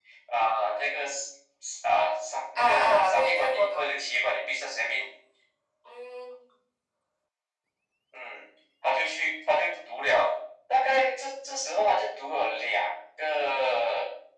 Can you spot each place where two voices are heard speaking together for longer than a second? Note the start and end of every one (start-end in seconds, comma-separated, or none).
2.6-3.8